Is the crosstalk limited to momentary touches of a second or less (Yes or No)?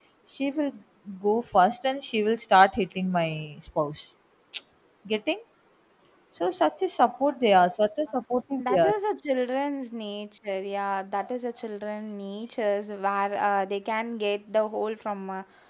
Yes